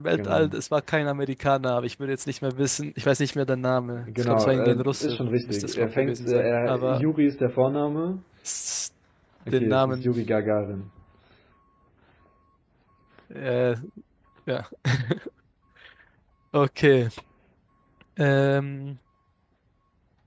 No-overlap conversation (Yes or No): No